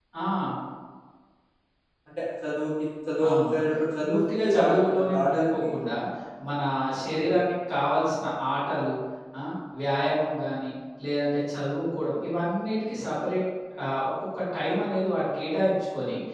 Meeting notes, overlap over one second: present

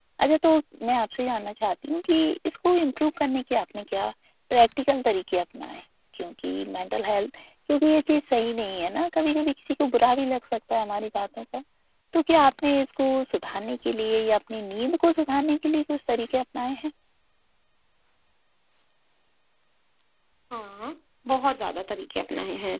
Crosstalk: none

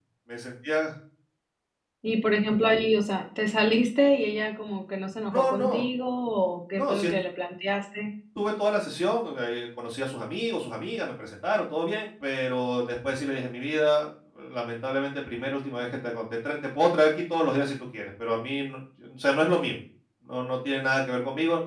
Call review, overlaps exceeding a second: none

